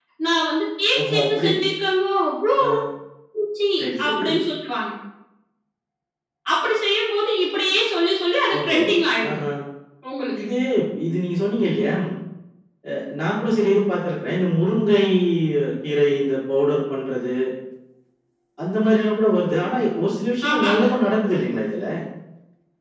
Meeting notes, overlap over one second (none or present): none